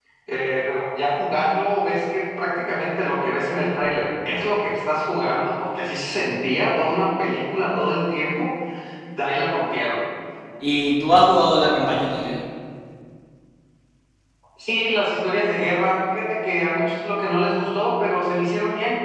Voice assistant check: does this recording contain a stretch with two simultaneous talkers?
No

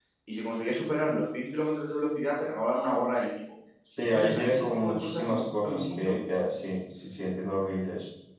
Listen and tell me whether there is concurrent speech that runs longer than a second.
Yes, from 4.1 s

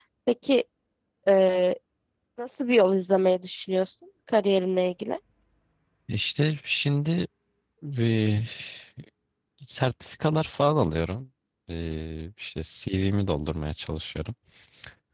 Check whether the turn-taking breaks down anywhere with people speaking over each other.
No

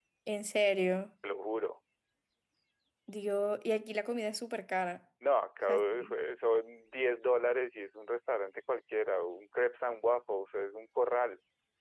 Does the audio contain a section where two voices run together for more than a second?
No

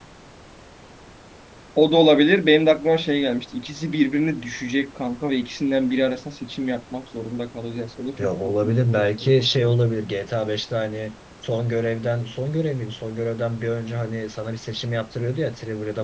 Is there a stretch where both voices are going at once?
Yes, from 8.2 s

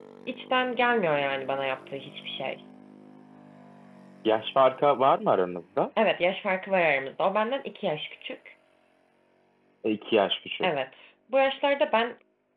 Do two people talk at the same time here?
No

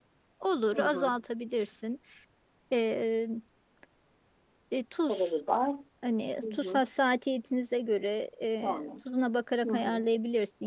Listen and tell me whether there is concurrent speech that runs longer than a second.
No

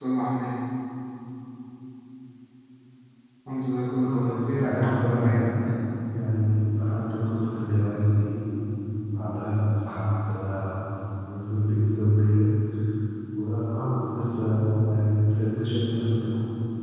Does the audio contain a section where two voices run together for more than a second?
Yes, from 4.0 s

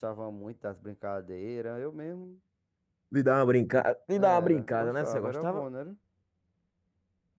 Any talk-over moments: Yes, from 4.1 s

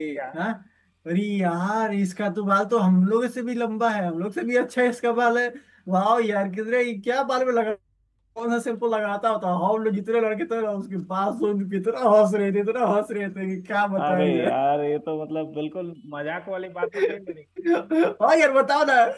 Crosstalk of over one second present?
No

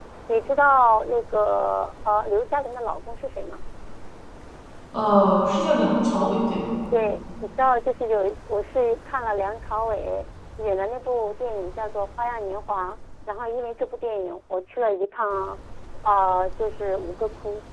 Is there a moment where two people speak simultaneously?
No

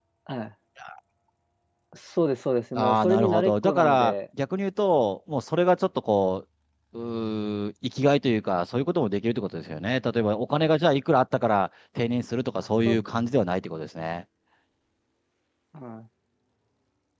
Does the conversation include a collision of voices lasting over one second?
Yes, from 2.8 s

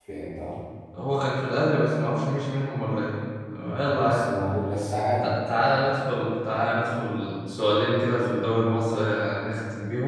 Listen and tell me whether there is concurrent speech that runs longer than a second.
No

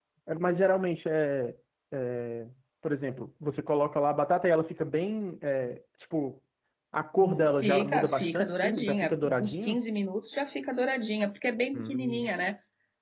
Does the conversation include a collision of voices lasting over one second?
Yes, from 7.2 s

